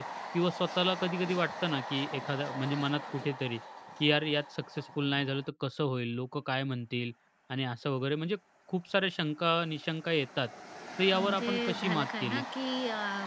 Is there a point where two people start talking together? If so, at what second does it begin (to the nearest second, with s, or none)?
11 s